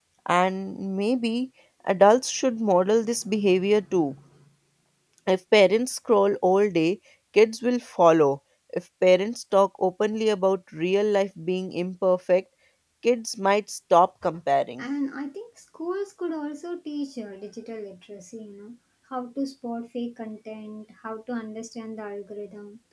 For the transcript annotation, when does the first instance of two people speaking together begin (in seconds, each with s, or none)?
none